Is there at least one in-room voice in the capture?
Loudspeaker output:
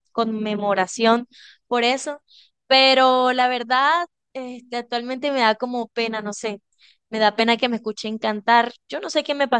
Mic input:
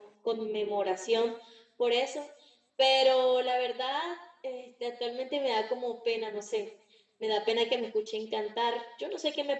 No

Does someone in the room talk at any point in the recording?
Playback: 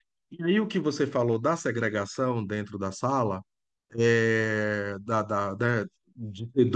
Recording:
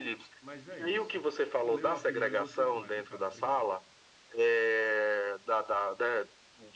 Yes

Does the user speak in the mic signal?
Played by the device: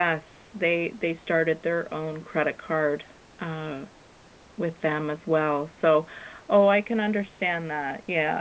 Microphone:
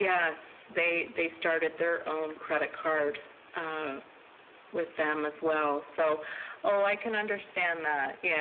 No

